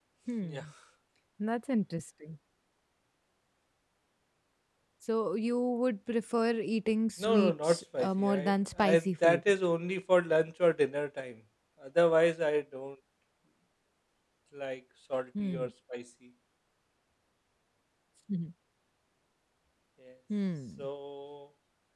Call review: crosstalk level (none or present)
present